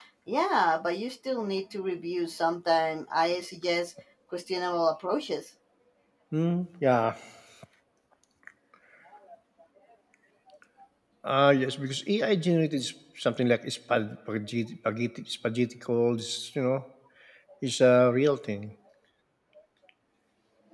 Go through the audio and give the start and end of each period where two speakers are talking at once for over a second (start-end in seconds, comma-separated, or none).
none